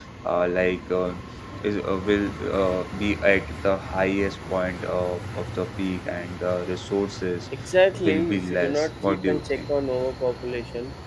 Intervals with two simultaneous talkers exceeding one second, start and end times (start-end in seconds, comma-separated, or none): 7.9-9.6